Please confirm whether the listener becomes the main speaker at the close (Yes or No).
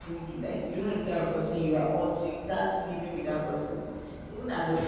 No